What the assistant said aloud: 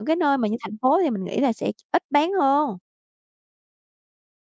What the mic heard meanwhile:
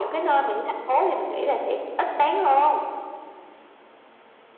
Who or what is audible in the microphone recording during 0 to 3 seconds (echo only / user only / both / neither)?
echo only